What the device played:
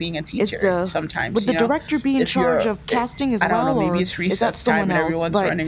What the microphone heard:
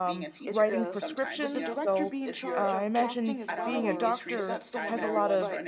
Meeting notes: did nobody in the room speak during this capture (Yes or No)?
No